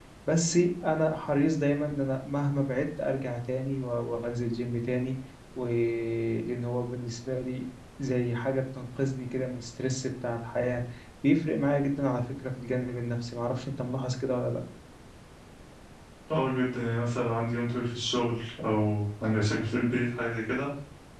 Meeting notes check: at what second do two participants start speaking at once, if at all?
none

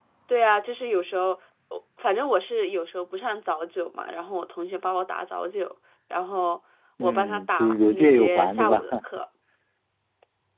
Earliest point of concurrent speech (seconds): 7.0 s

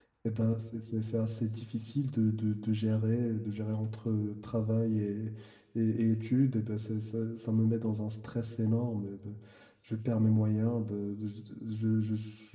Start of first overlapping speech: none

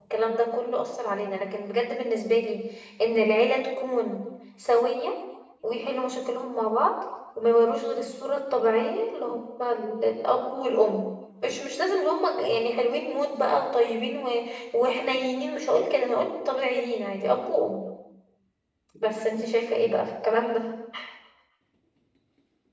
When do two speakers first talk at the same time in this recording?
none

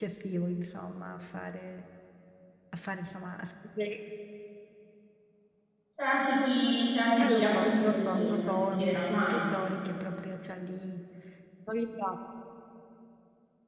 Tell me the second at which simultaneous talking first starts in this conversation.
7.2 s

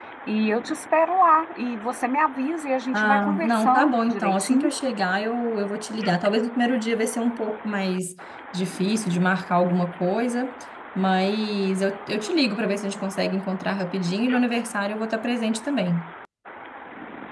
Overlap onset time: 2.9 s

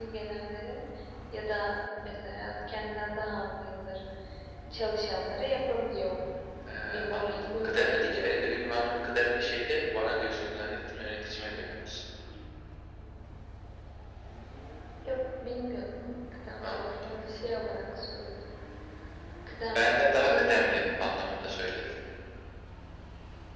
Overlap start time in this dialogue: 7.1 s

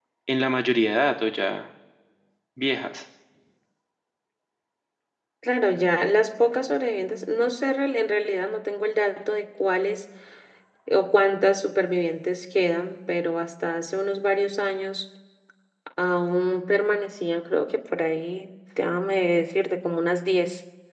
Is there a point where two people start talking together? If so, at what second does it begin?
none

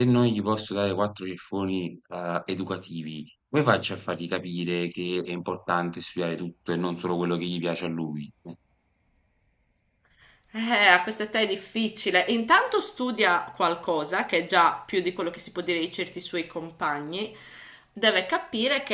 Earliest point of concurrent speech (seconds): none

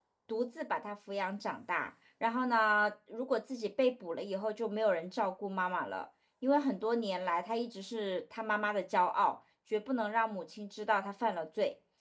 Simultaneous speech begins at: none

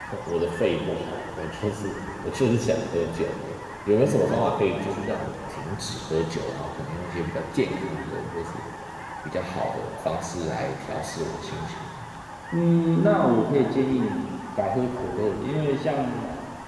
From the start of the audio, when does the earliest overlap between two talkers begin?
none

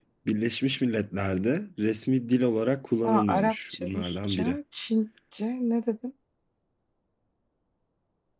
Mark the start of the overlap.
3.0 s

